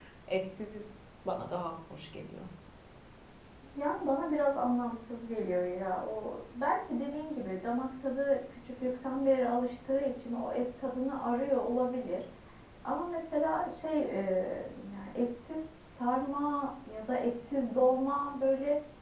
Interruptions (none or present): none